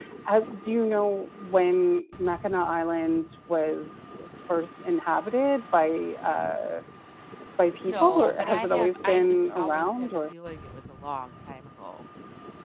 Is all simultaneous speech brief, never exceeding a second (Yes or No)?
No